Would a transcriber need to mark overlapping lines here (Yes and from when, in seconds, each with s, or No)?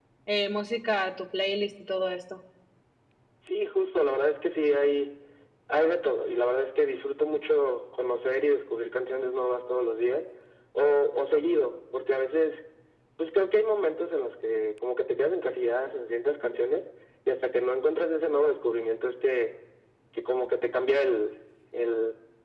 No